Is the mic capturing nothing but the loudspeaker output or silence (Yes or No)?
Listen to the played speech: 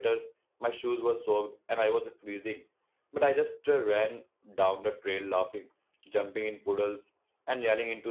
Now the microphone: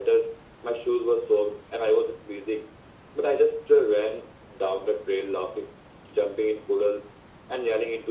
Yes